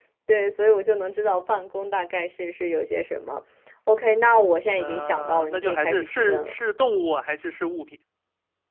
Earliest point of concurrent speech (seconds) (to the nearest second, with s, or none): 5 s